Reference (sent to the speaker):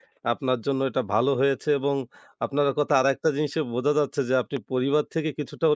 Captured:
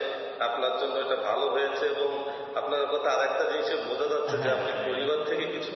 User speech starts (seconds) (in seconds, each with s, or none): 4.0 s